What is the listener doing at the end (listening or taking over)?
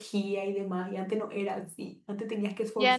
taking over